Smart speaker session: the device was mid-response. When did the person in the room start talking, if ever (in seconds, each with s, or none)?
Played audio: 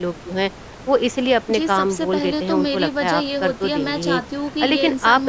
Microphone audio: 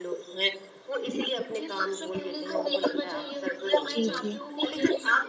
3.9 s